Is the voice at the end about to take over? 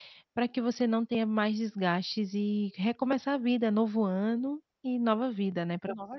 Yes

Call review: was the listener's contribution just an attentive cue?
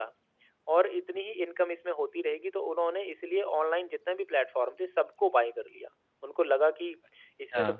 Yes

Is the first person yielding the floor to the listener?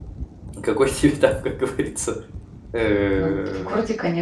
Yes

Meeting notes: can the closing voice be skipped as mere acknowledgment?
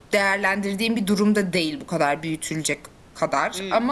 Yes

